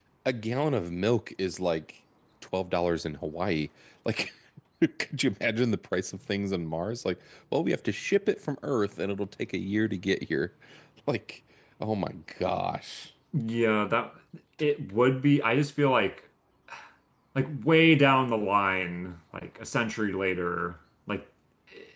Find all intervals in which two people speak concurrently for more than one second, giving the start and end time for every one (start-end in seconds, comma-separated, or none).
none